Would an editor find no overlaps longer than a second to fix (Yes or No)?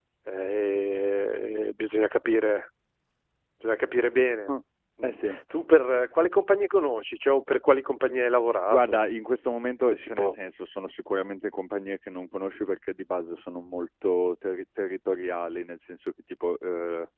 Yes